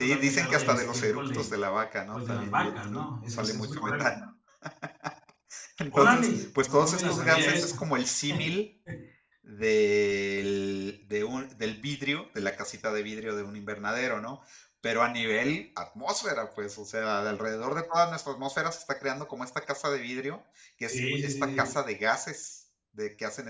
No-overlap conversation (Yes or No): No